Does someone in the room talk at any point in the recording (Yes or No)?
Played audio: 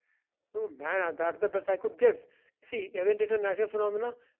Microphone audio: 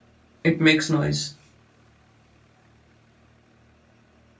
Yes